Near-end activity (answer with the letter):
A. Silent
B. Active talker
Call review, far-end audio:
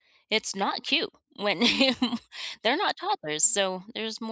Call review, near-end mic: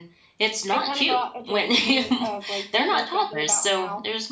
B